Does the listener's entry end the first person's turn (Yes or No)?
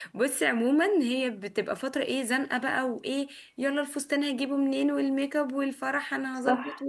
No